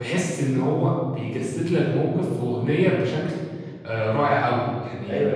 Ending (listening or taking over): taking over